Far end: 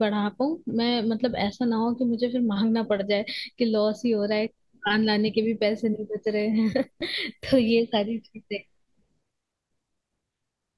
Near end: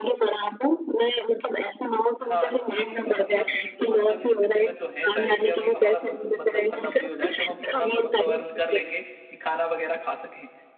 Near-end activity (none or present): present